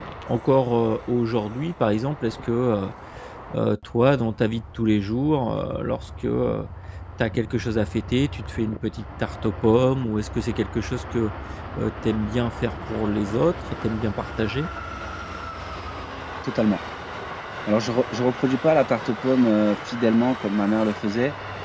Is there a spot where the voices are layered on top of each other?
No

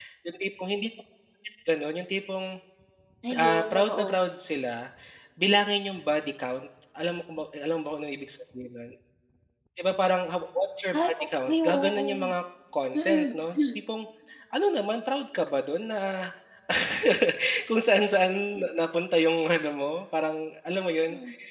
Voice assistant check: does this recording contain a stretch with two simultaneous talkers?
Yes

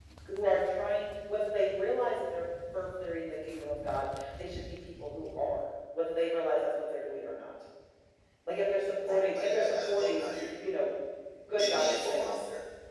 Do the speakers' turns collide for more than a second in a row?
Yes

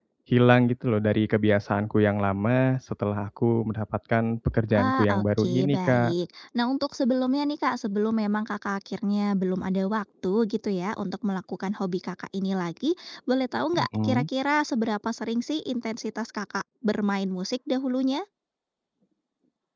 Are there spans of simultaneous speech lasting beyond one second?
Yes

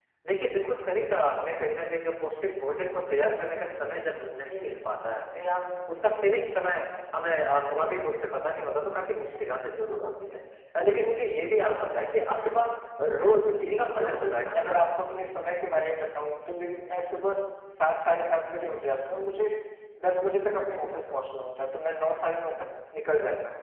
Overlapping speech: Yes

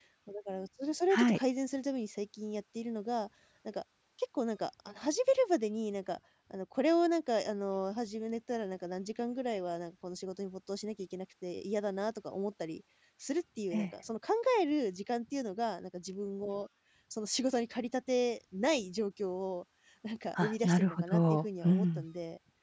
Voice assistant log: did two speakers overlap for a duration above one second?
Yes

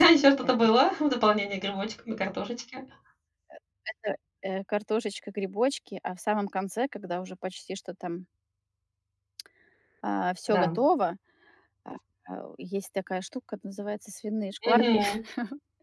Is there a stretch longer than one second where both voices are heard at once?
No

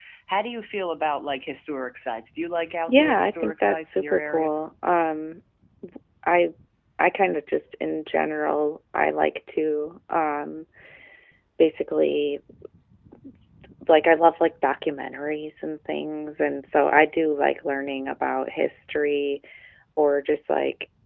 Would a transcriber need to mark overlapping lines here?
Yes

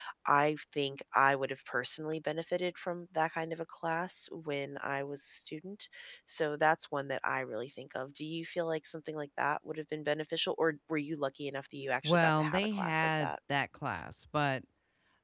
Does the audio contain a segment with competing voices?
Yes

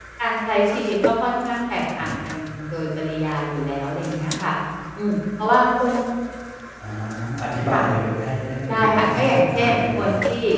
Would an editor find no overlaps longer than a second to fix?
No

